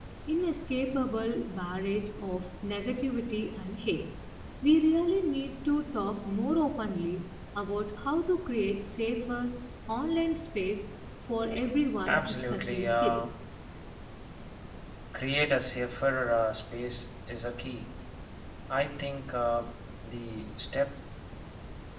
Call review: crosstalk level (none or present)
present